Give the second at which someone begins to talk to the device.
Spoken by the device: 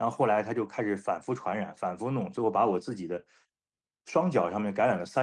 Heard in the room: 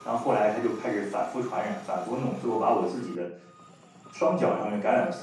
none

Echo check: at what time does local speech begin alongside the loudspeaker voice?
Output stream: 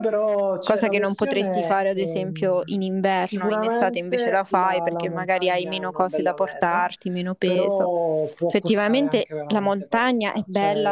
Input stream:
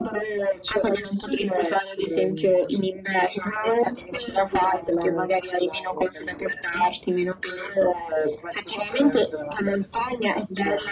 none

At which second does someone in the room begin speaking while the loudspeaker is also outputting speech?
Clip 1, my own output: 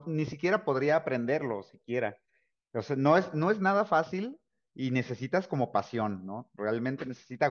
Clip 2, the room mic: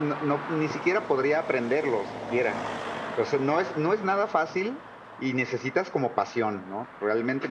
none

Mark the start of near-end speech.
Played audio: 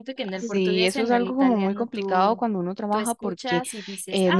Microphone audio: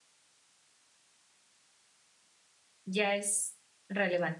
2.9 s

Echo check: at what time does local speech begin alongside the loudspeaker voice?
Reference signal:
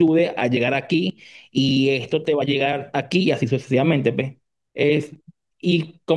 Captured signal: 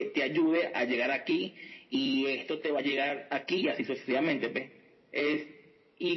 none

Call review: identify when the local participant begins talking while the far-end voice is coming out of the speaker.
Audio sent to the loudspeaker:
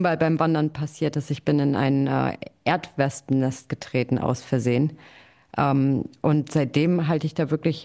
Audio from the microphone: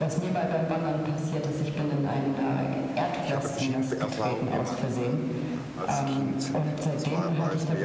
2.9 s

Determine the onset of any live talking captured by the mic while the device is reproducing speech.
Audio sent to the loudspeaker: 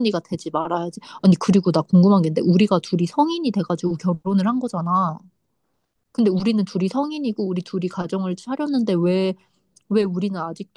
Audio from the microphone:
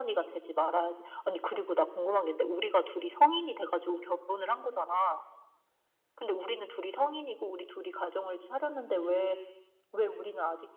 none

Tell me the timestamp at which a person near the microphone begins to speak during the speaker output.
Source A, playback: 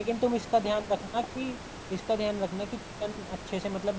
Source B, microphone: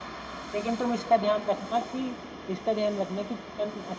none

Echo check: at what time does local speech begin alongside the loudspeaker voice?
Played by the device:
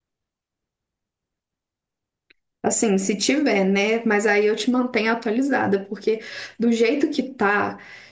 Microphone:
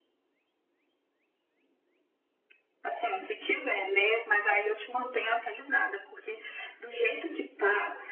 none

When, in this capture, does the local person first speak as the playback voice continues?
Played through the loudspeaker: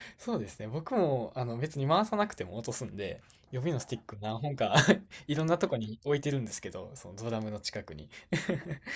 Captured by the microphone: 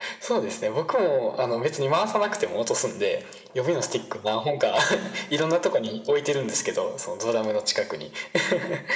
none

